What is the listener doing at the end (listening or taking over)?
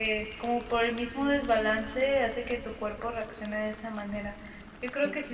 listening